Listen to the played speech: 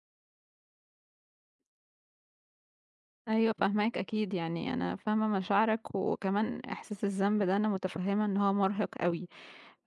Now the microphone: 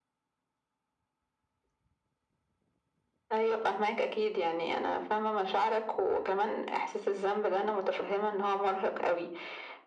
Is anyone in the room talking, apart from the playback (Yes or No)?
No